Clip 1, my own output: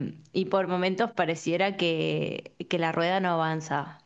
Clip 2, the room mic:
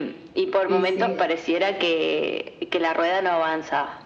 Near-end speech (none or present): present